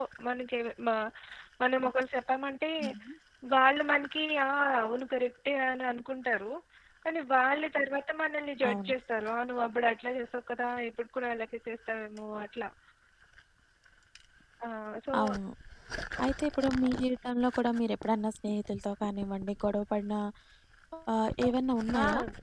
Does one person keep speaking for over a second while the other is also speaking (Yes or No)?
No